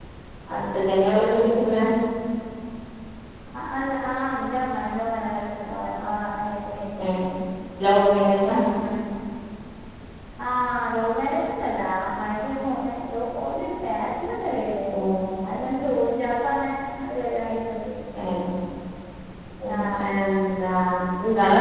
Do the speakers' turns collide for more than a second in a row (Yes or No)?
No